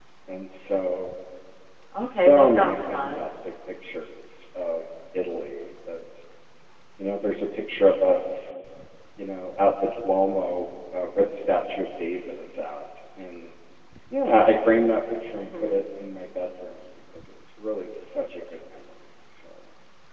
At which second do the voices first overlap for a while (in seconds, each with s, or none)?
2.0 s